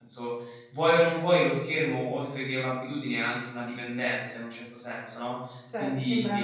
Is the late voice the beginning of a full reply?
Yes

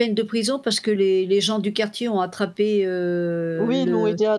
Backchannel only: No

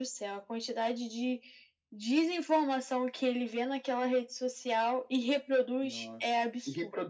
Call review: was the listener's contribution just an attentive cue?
No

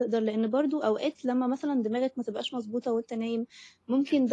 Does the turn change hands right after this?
No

